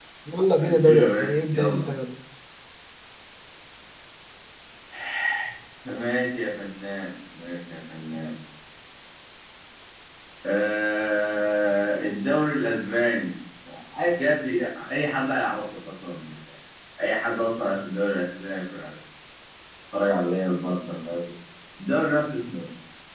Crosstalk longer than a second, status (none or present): present